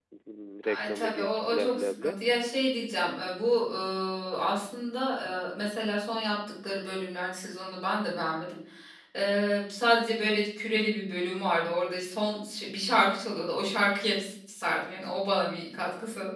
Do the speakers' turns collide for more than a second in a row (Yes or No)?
Yes